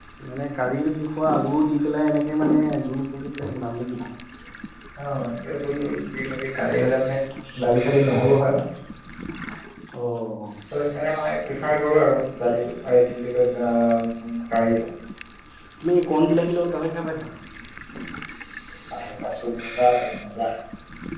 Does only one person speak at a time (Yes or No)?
Yes